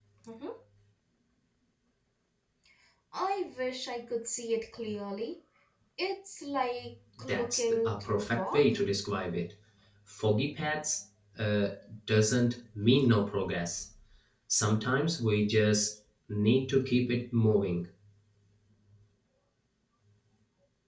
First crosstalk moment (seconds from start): 7.3 s

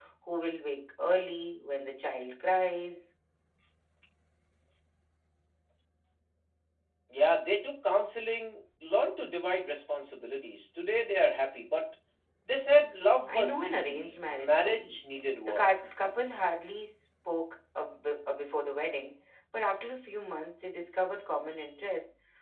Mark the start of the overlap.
13.3 s

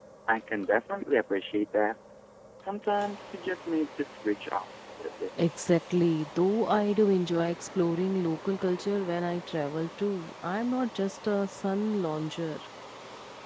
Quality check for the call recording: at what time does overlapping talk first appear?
none

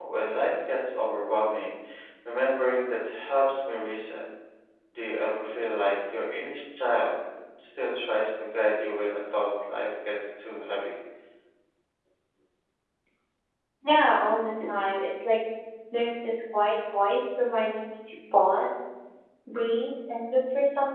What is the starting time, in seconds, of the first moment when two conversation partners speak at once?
none

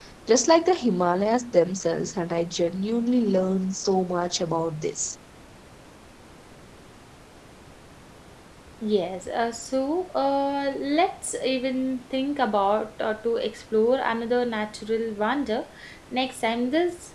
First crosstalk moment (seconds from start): none

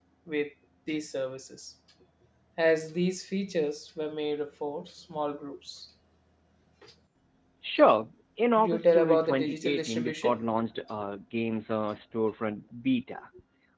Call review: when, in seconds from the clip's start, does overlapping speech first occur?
8.6 s

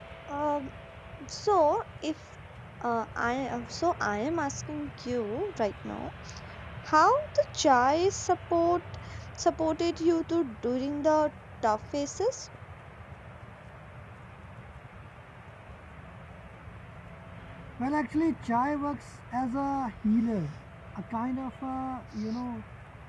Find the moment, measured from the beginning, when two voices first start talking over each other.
none

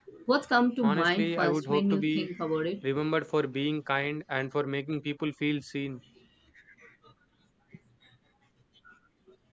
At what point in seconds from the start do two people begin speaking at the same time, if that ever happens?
0.8 s

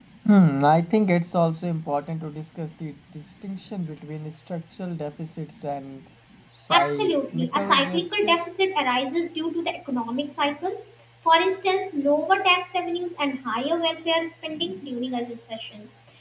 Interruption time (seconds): 6.7 s

